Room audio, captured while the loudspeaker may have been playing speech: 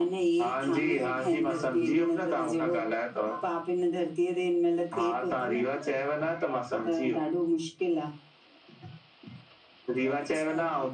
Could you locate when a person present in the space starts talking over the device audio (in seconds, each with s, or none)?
none